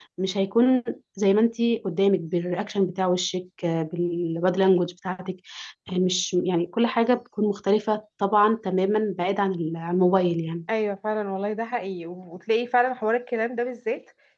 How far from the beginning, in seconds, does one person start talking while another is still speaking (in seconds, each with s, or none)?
none